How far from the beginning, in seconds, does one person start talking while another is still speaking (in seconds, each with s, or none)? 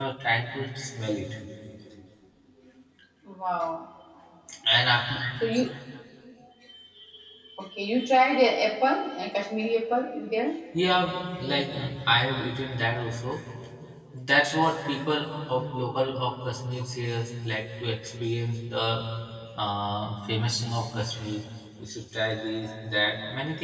none